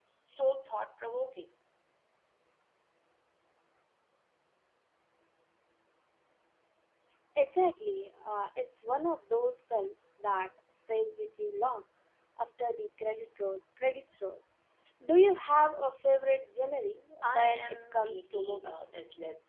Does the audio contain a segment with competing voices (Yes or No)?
Yes